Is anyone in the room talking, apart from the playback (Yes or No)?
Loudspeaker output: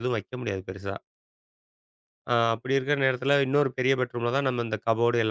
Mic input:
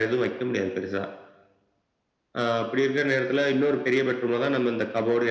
No